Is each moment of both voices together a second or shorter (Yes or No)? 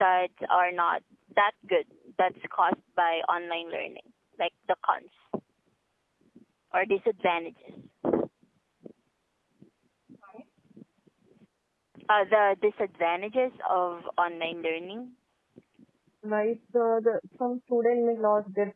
Yes